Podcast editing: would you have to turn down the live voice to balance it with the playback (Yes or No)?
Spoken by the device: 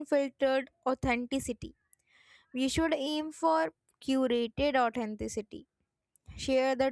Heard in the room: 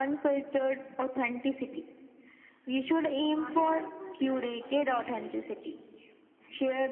No